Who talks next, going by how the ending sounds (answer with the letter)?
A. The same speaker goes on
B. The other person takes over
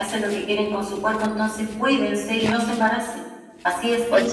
B